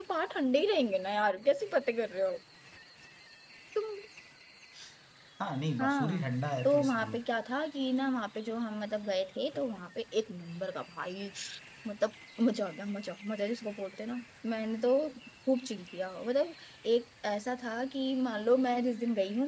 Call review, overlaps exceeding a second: none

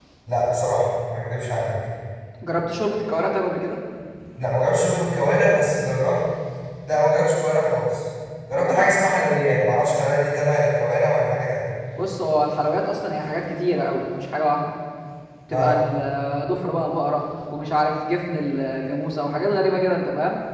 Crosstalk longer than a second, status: none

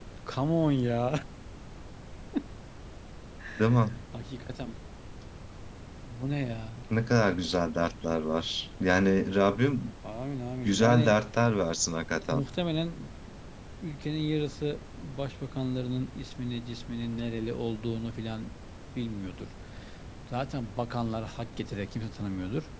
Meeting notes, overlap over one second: none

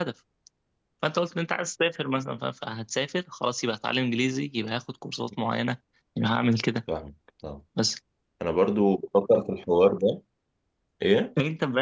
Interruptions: none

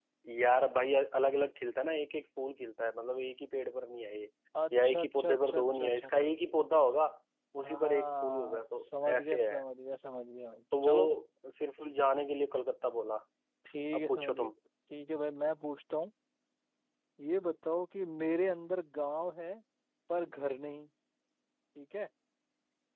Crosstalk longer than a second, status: present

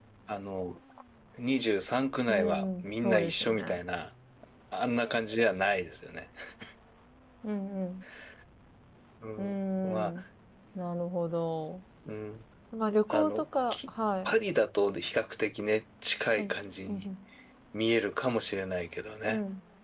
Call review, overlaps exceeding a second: present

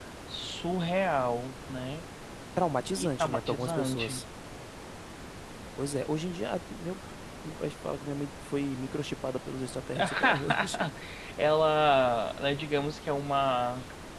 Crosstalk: present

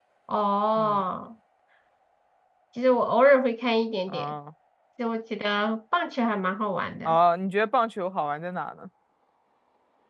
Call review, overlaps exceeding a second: none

